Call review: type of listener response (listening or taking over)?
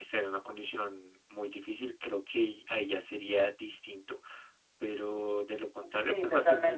listening